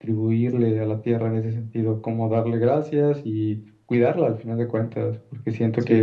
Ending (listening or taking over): taking over